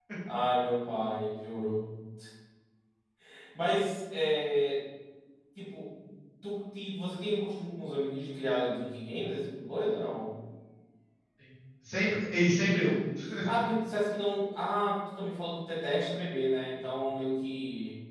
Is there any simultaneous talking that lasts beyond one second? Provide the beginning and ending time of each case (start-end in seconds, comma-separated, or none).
none